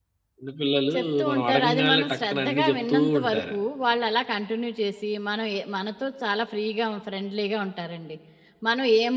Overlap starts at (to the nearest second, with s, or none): 1 s